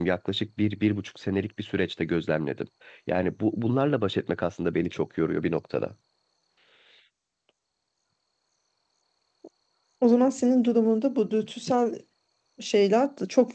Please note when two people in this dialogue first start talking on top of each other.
none

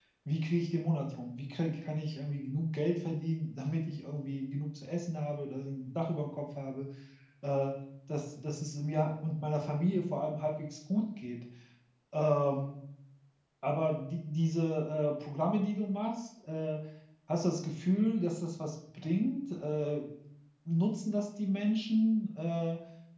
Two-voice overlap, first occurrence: none

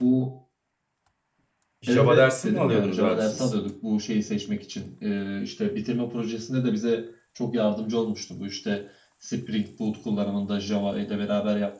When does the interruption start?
1.9 s

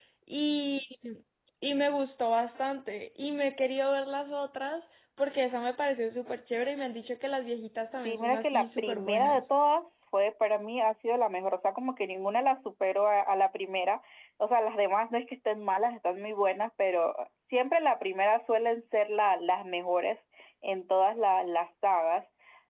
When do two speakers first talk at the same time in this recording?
7.9 s

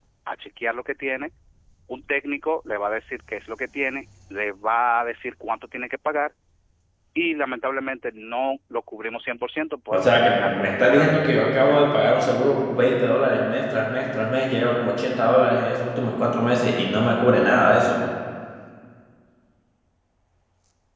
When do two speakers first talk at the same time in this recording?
9.9 s

